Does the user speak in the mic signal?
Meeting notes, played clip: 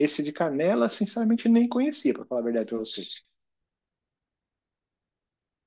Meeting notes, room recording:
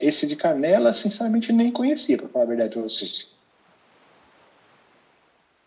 No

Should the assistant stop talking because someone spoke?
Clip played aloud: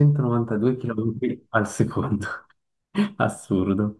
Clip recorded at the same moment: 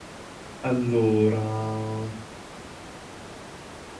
Yes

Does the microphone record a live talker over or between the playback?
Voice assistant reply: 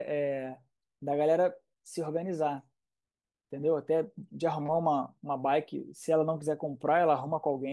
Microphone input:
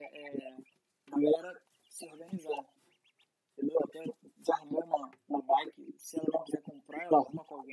No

